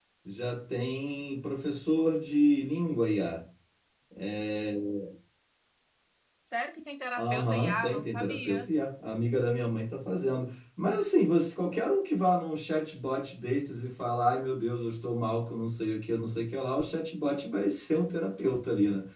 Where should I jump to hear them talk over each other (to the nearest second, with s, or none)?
7 s